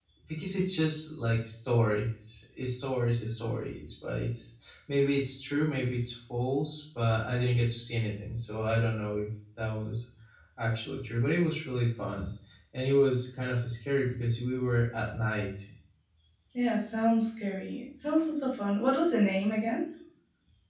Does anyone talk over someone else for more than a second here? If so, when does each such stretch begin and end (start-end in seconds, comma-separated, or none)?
none